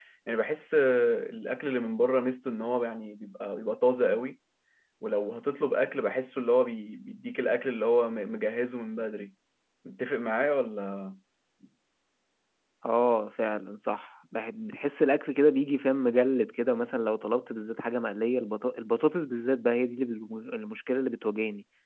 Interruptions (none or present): none